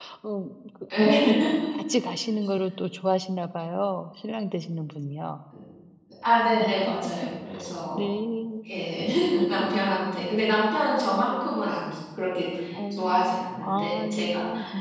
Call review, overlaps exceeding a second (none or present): present